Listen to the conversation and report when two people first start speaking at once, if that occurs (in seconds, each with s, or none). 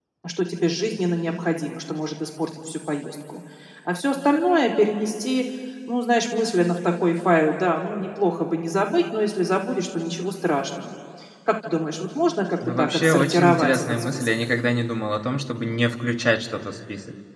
12.6 s